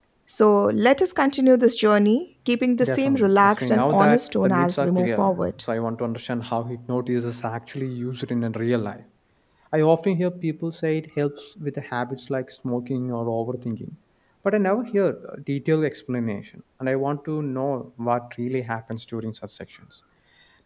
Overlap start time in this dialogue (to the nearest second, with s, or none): 3 s